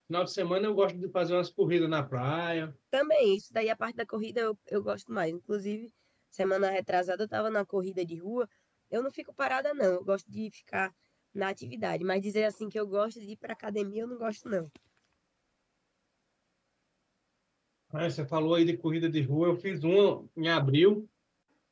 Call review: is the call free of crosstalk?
Yes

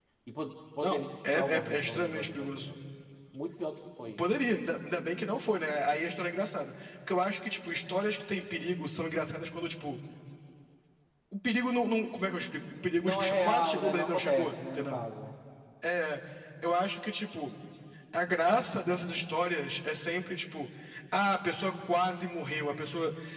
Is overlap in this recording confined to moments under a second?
No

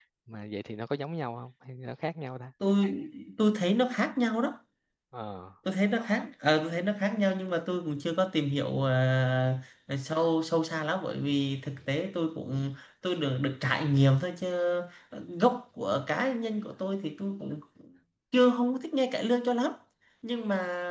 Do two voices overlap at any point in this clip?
No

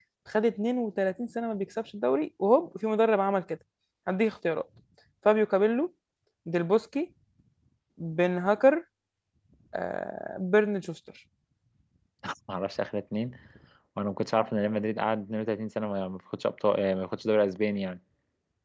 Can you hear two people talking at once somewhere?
No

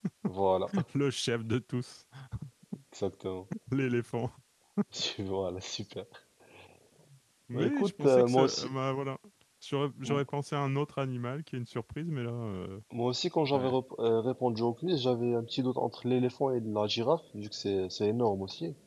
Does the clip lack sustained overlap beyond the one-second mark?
No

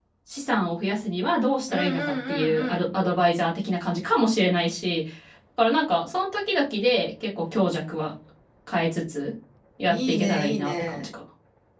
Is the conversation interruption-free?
No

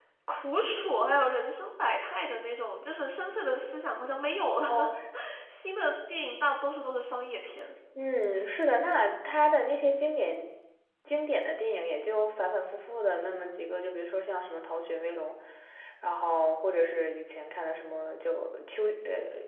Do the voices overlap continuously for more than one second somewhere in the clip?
No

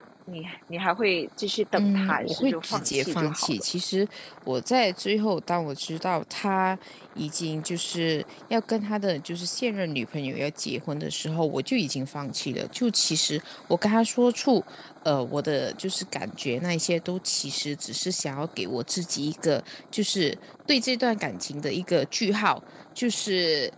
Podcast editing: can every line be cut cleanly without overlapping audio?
No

